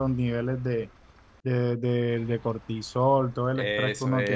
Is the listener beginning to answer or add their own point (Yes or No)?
Yes